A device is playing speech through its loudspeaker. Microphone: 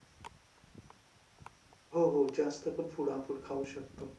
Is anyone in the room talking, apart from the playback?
Yes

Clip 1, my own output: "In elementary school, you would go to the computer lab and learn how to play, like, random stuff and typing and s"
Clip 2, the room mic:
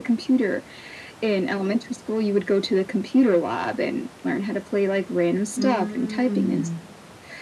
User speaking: Yes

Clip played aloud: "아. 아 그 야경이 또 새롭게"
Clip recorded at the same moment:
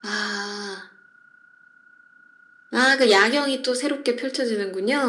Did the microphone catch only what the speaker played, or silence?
Yes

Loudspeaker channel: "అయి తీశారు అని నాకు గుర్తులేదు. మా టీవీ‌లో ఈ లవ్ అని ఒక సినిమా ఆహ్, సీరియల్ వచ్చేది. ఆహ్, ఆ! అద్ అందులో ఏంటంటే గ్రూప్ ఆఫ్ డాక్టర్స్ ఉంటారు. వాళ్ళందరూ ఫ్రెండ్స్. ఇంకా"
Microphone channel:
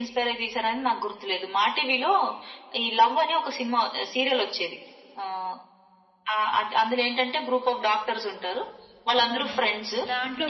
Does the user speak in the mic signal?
Yes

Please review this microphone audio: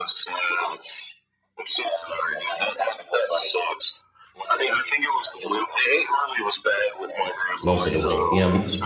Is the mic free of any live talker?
No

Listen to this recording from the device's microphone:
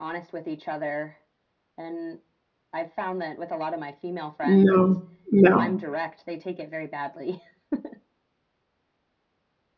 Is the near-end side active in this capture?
Yes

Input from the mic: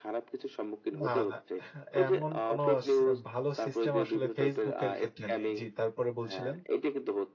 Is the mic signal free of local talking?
No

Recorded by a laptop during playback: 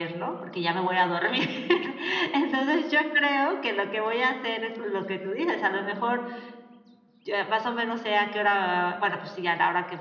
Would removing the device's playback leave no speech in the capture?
Yes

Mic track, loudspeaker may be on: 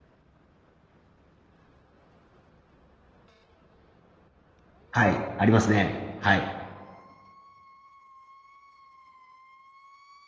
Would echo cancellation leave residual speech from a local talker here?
Yes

